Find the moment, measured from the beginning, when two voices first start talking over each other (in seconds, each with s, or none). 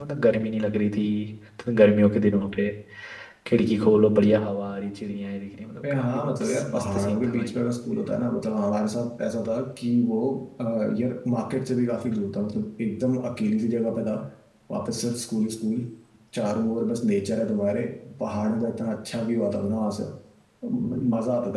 5.8 s